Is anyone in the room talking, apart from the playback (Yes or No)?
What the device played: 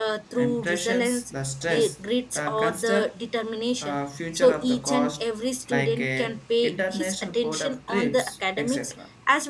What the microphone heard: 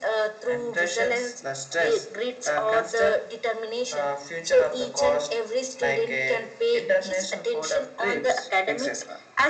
No